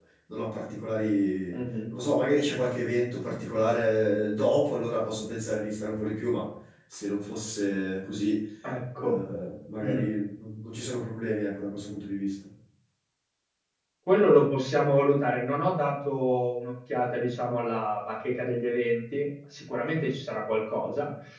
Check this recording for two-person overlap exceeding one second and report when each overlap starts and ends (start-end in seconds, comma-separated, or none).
none